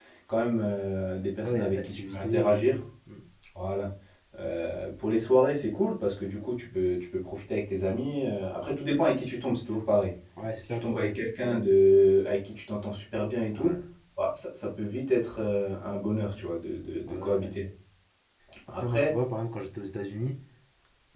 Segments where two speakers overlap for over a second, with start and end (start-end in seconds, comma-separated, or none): 1.4-2.8